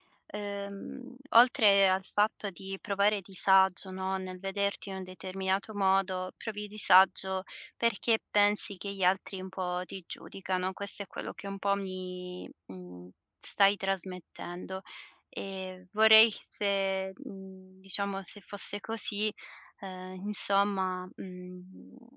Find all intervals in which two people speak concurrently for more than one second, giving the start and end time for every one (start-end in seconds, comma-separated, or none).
none